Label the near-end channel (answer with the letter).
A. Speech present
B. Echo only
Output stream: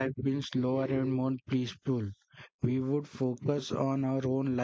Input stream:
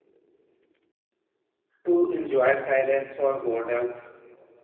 A